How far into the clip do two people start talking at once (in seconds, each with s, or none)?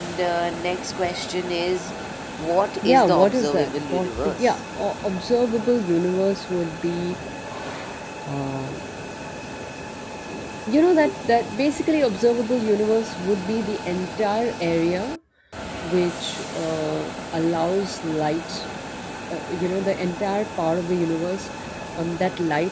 2.8 s